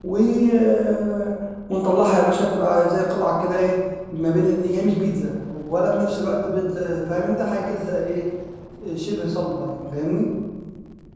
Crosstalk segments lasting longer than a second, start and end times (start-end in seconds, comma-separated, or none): none